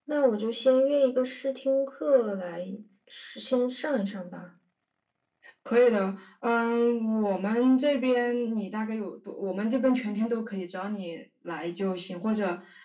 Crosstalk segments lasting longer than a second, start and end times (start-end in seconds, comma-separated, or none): none